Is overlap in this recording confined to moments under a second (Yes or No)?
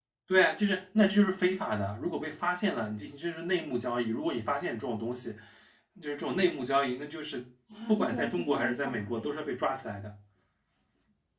No